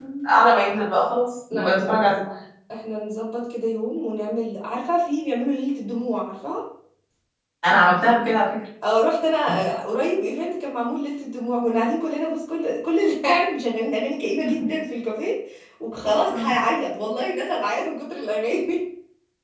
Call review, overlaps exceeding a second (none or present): none